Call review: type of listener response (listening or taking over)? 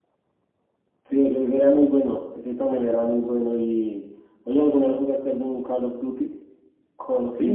taking over